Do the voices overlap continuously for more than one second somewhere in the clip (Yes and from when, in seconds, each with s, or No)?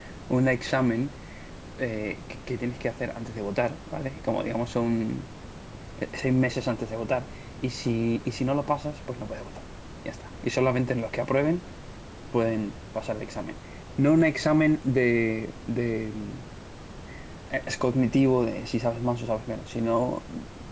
No